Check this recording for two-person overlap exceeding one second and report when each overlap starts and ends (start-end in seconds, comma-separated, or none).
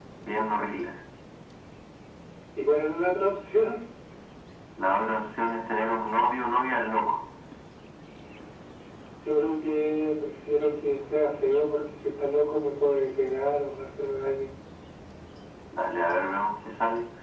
none